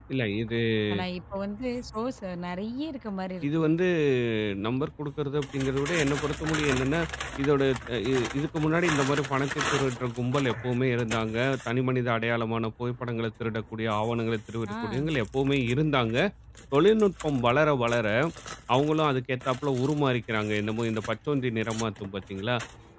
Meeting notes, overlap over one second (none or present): none